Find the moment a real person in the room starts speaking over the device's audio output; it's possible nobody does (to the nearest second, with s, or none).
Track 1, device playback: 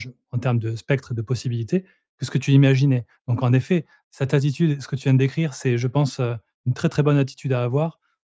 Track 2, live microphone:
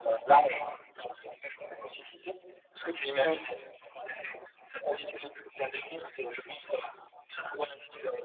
3 s